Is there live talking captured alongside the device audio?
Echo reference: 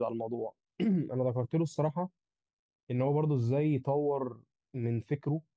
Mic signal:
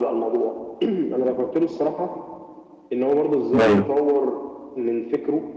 Yes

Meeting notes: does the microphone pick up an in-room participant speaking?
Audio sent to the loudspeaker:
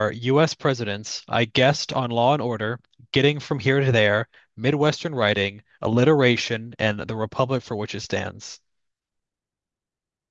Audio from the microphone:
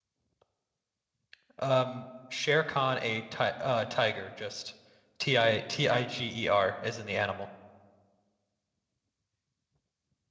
Yes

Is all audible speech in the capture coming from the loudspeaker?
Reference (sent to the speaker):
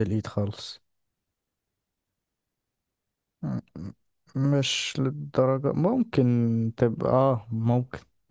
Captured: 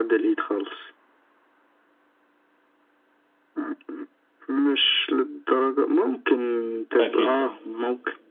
No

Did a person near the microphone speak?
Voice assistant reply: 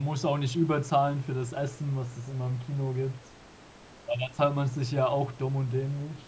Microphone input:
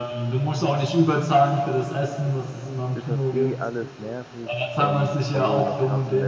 Yes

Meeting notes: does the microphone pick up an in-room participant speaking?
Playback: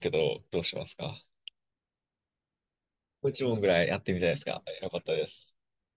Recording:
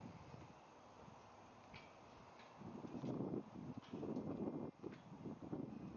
No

